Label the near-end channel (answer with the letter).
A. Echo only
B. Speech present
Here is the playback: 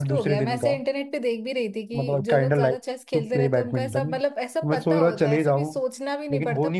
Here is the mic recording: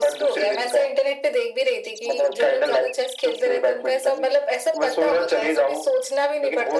A